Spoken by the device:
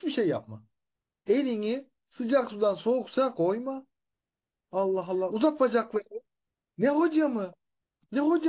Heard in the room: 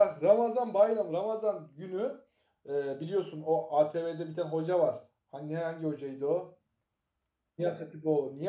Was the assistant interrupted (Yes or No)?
Yes